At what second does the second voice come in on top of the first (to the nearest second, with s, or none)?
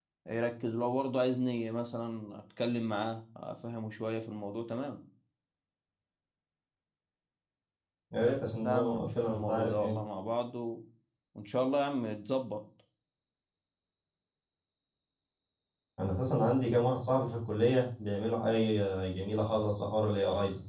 9 s